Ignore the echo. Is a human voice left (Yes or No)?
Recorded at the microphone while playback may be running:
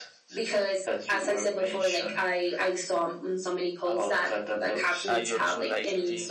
Yes